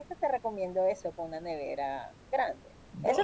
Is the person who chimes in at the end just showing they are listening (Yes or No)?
Yes